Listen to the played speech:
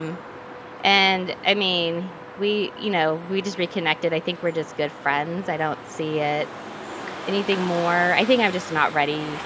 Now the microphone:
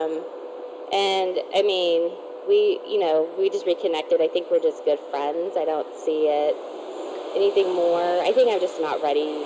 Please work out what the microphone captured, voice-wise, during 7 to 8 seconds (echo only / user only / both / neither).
echo only